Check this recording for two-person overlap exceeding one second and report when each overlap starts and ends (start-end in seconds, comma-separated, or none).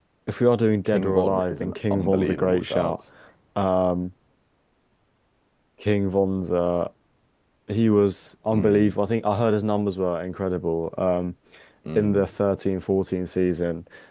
0.8-3.0